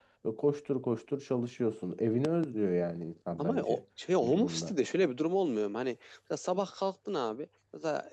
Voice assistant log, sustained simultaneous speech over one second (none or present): none